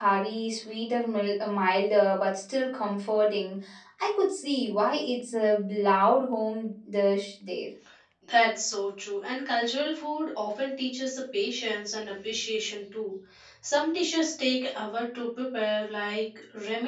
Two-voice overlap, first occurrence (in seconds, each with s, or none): none